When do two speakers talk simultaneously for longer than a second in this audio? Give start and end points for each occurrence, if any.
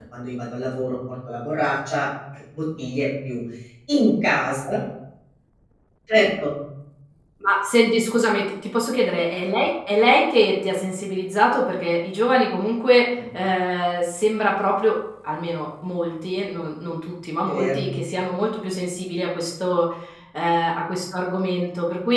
none

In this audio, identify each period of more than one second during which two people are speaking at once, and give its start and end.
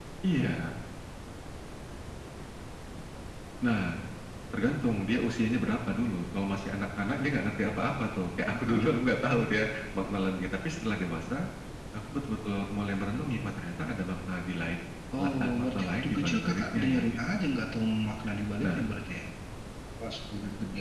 15.2-17.4

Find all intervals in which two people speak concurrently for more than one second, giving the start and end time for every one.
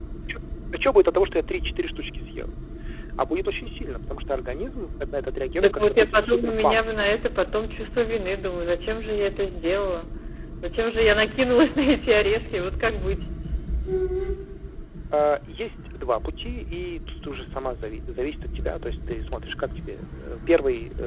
5.6-6.8

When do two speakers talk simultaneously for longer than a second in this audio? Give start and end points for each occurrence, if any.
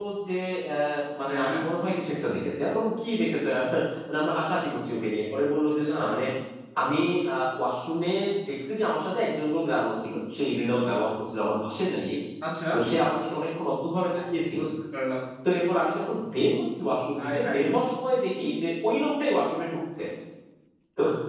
none

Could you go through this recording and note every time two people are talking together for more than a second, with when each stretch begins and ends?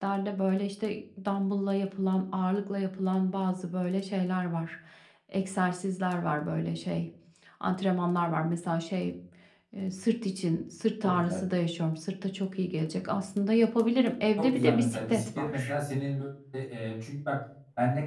14.4-15.7

